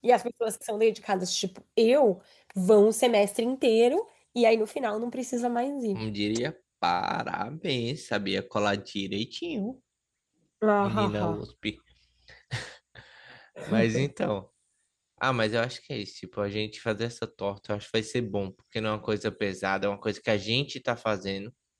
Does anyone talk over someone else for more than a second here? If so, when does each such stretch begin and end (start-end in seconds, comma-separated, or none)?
none